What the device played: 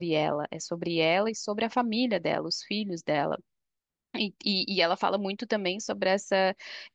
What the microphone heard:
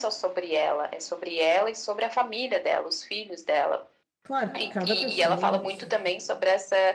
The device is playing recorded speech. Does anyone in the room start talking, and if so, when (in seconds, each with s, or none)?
4.2 s